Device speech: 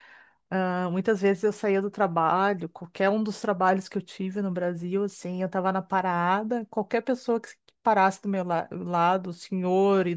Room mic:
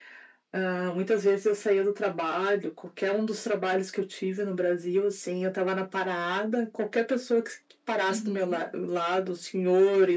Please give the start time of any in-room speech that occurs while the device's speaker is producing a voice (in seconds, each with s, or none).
8.1 s